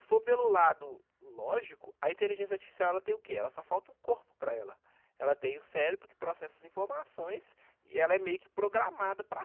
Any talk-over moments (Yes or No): No